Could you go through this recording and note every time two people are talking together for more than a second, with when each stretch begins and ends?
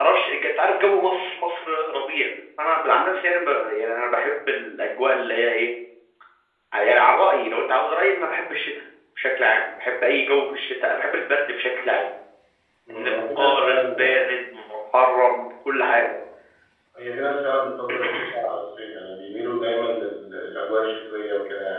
12.9-14.3

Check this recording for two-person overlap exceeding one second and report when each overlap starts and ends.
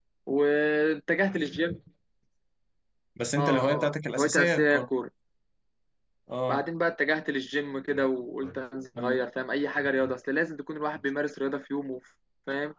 3.4-4.9

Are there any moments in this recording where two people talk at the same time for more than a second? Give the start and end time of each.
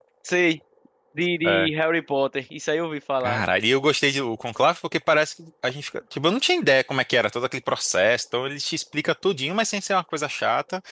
none

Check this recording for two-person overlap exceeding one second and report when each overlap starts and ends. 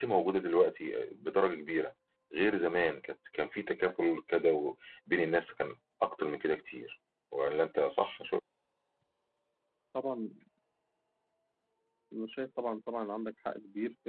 none

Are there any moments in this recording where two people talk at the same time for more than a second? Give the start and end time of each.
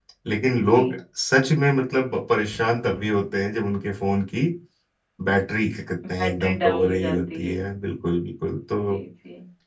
6.1-7.5

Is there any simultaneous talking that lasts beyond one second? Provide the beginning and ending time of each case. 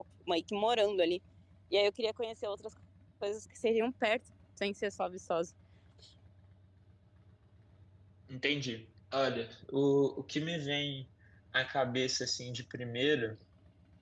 none

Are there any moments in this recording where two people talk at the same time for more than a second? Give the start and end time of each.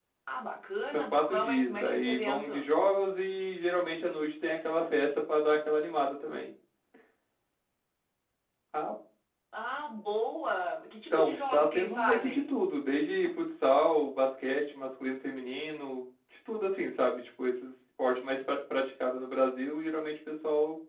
0.9-2.7, 11.1-12.5

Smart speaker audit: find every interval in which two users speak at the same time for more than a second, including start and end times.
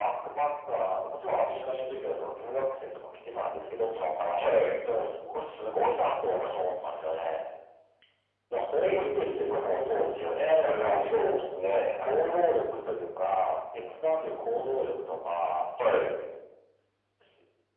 8.8-10.1

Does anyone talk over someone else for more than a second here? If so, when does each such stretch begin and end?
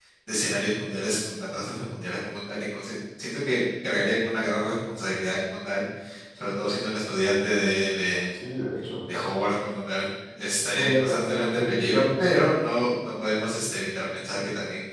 10.7-12.0

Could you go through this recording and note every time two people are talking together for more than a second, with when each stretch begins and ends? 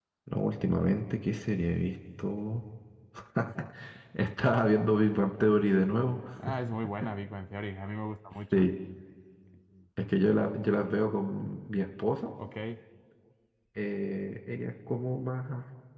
none

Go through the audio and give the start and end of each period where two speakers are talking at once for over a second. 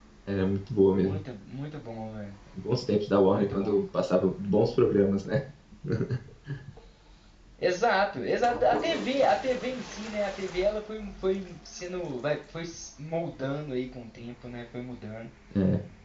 none

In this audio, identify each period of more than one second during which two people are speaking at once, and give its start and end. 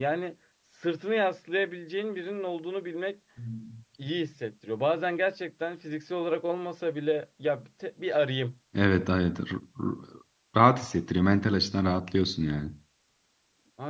none

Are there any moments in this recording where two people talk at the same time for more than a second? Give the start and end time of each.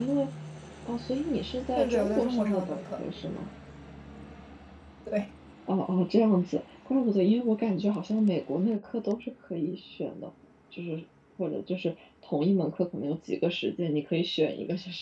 1.8-3.0

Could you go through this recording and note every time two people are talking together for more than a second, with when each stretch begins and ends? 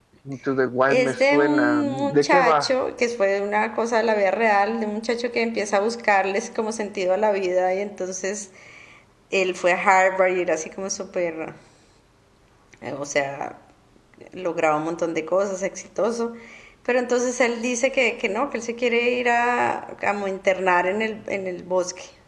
0.9-2.7

